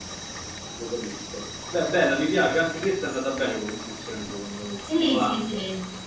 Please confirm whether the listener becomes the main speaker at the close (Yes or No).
Yes